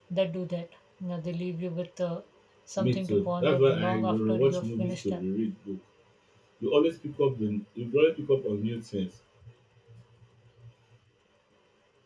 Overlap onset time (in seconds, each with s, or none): 2.8 s